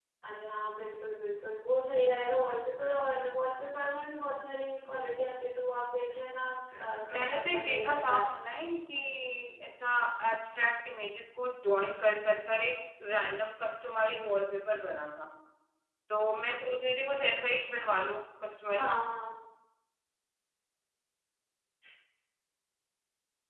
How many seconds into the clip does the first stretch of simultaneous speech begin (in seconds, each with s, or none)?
7.1 s